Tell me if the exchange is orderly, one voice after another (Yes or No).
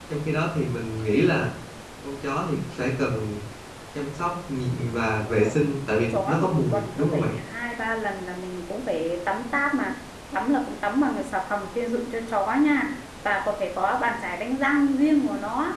No